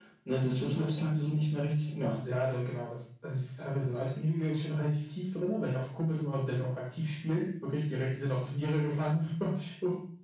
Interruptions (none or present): none